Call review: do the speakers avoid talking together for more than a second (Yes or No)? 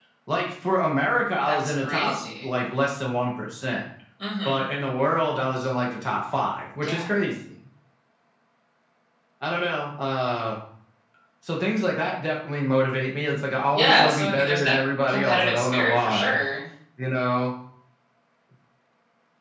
No